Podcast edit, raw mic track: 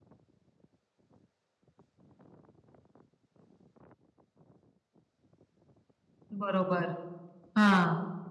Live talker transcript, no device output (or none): बरोबर. हां.